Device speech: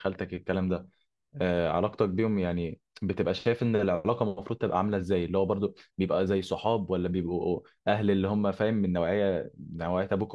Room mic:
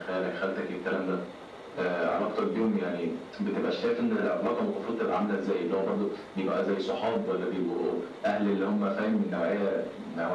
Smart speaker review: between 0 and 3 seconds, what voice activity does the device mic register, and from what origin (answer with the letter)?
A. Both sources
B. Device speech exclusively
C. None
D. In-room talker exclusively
B